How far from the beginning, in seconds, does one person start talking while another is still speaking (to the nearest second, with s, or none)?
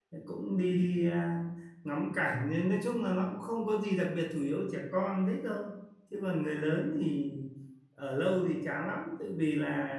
none